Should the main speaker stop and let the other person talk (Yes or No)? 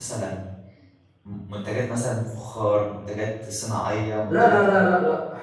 Yes